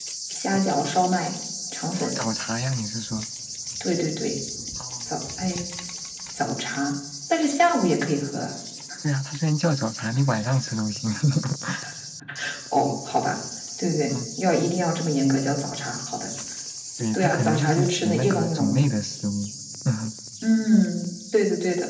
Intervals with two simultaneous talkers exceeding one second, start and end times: 17.1-18.8

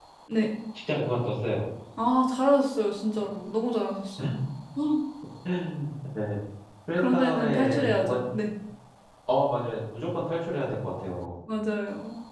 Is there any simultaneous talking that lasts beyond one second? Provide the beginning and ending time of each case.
7.0-8.2

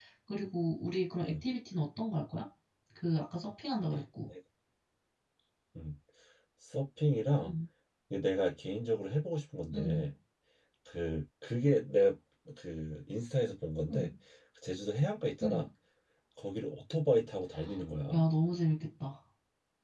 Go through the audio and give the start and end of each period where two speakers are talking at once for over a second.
none

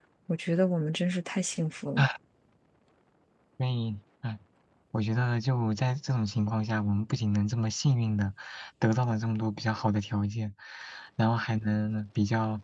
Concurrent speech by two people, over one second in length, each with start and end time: none

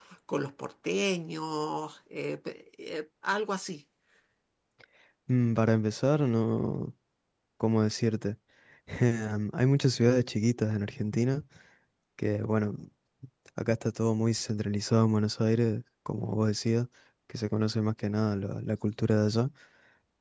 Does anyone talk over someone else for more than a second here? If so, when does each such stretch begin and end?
none

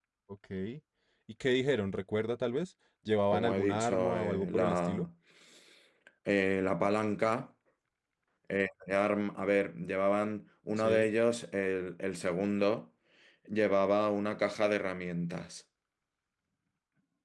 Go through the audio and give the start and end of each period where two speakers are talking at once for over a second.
3.3-5.1

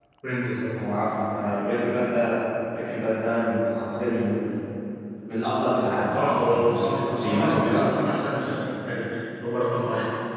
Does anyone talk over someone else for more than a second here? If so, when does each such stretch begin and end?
6.1-8.2

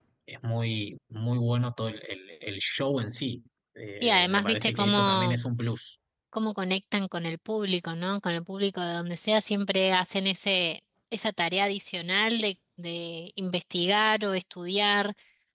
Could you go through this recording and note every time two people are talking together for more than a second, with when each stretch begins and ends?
4.0-5.4

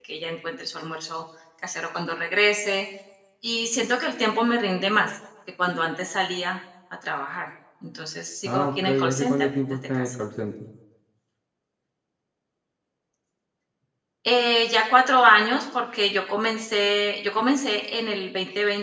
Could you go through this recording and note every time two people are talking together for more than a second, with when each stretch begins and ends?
8.4-10.1

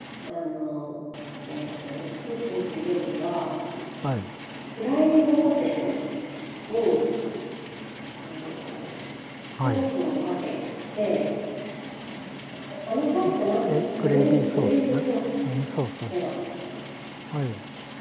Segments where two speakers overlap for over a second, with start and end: 13.4-14.9

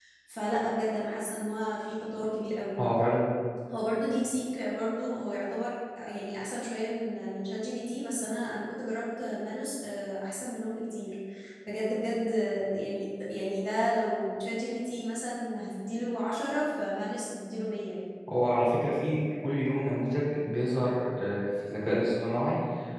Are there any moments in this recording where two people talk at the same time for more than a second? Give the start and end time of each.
none

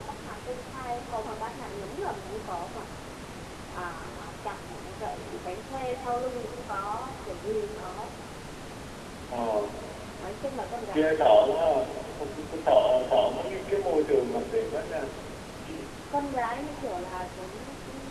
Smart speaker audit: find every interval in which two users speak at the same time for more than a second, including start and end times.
none

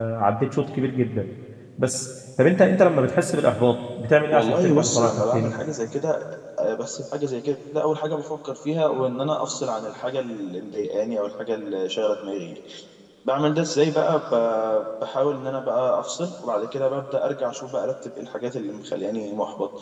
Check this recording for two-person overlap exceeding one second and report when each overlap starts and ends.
4.3-5.5

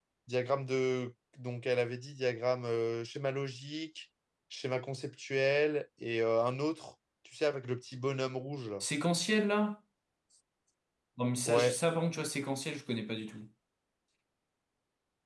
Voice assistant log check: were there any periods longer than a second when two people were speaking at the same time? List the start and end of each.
none

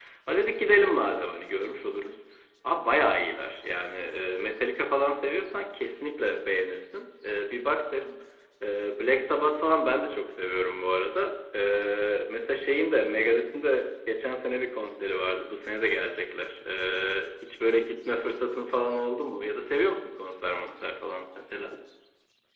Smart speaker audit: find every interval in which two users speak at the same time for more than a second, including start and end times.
none

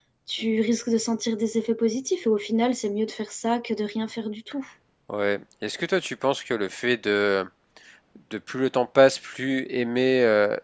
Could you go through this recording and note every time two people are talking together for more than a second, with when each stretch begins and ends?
none

